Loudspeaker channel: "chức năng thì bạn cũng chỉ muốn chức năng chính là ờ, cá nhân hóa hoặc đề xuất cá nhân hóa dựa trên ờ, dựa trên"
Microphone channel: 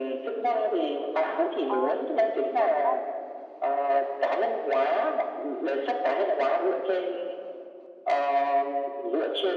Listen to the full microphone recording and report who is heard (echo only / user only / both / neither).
both